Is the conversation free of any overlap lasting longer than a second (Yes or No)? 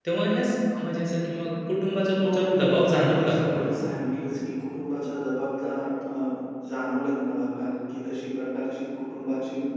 No